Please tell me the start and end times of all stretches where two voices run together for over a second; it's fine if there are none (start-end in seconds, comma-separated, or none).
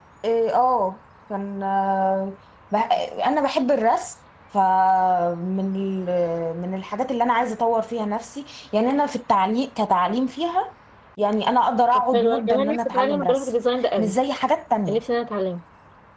12.1-13.5